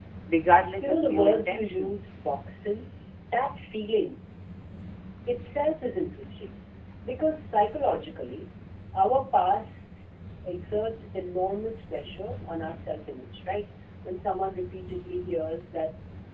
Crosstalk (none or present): present